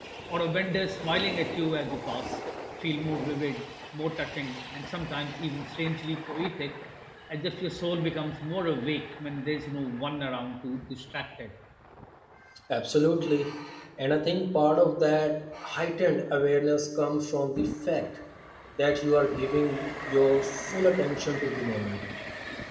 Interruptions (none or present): none